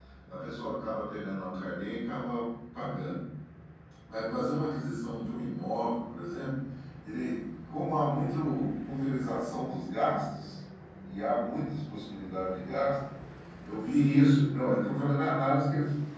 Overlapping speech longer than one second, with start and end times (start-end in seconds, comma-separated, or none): none